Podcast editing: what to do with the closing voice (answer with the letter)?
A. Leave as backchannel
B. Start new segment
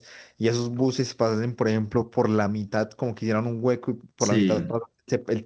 A